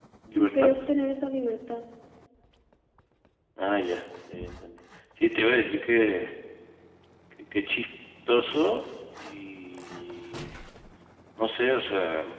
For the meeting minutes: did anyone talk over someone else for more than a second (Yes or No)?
No